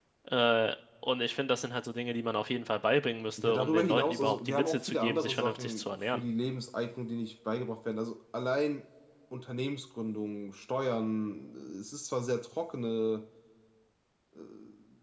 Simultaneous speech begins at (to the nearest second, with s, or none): 3 s